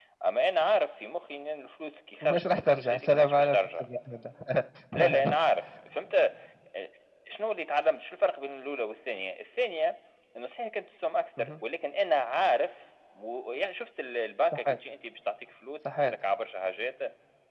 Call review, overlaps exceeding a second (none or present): present